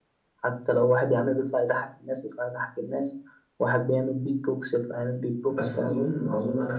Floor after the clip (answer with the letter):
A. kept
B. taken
B